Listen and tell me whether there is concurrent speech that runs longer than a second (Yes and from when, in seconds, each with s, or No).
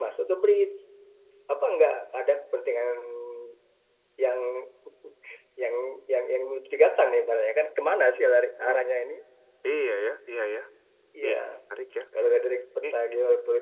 No